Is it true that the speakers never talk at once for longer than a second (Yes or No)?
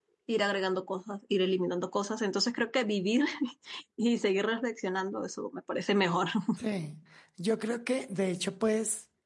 Yes